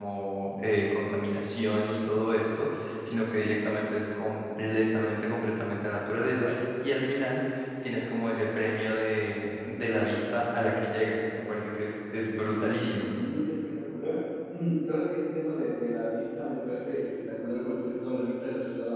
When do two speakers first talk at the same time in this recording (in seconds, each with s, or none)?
none